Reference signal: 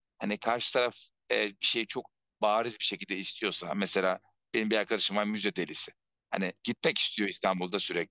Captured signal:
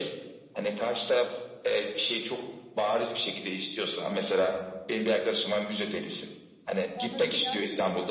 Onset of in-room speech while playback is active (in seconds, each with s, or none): 6.9 s